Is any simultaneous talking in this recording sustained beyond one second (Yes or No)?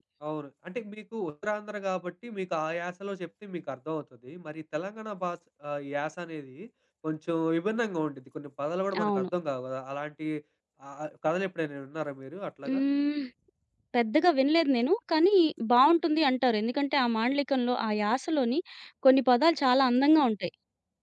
No